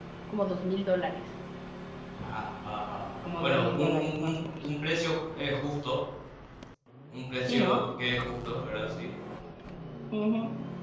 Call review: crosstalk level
present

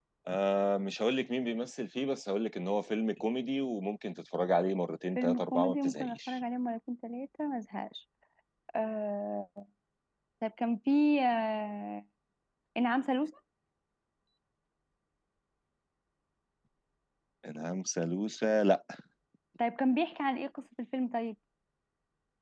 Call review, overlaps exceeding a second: present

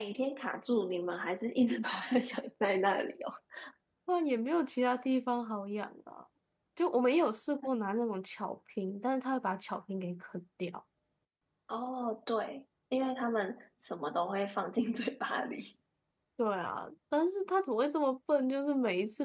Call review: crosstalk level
none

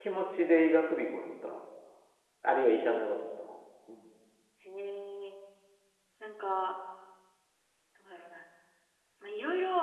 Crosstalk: none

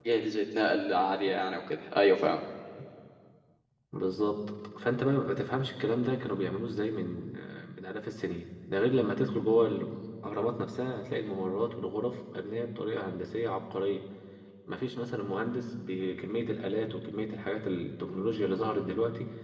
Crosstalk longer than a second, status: none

